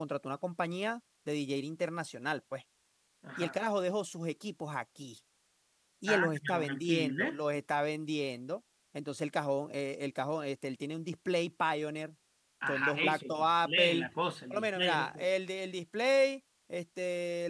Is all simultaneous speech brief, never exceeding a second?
No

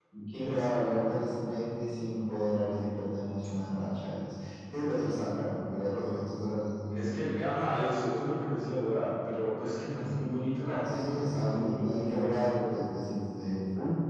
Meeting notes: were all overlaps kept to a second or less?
No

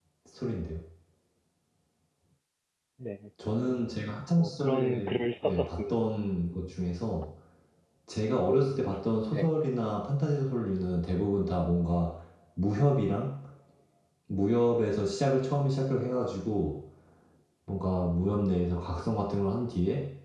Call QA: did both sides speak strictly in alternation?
No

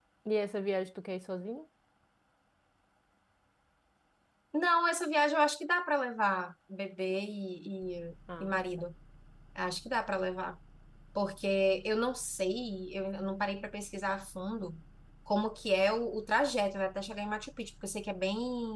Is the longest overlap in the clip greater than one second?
No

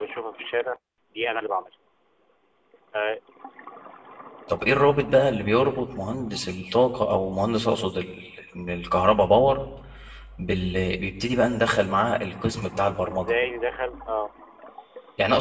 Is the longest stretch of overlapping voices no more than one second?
Yes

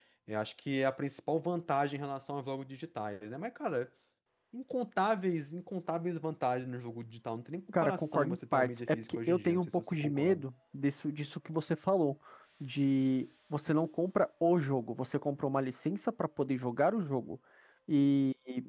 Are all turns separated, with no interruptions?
No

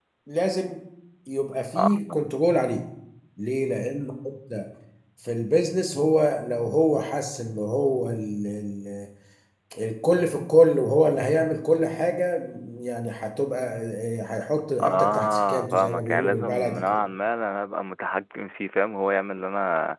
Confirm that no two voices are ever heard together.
No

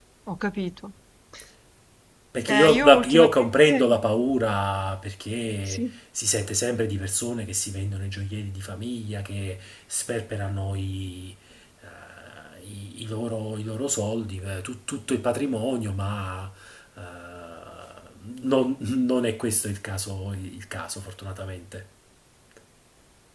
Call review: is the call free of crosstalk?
No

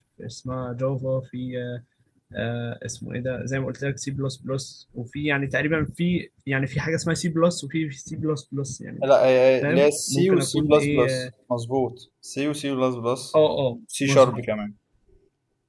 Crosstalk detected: Yes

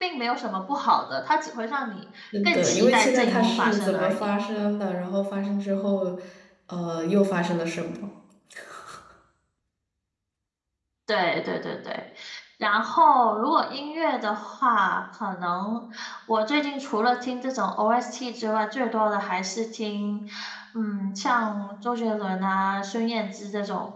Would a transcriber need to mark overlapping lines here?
Yes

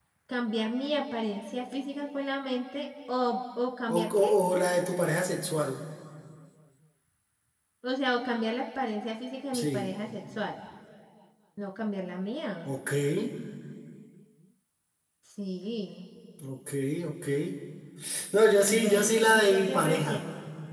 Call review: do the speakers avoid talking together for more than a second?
No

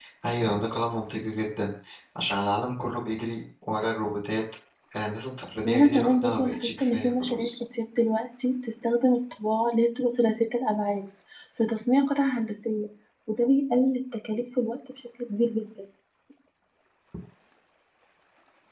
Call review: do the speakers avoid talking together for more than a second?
No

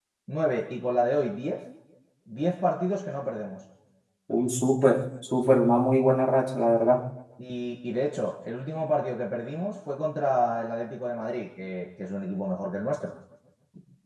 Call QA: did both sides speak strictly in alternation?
Yes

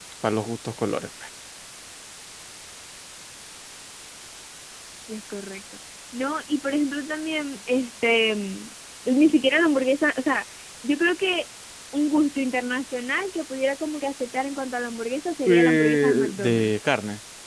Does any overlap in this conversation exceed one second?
Yes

